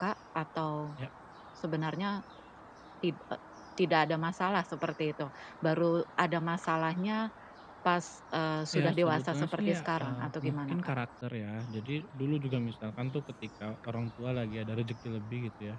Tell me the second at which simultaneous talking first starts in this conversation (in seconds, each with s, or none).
8.7 s